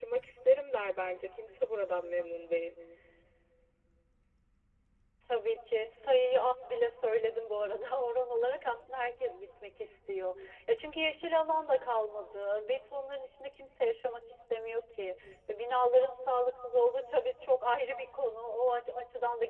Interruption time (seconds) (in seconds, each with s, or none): none